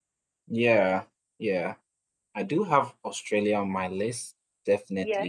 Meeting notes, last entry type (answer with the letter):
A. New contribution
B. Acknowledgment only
B